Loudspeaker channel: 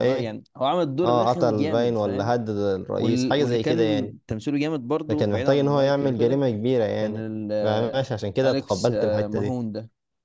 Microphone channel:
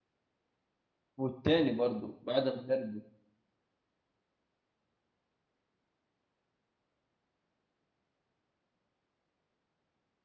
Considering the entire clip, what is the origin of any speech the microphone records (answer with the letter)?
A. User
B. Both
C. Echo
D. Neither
A